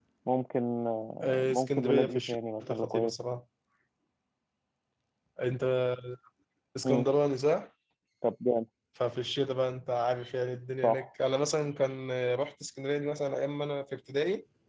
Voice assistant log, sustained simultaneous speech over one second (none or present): present